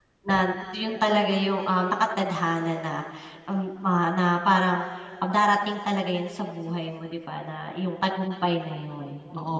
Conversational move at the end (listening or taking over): taking over